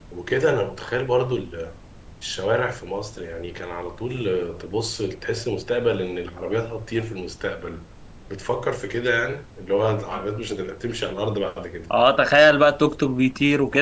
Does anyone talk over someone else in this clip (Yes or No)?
No